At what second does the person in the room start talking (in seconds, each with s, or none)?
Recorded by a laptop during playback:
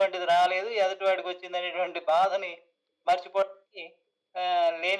none